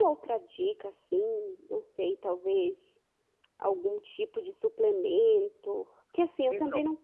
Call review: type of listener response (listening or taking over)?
listening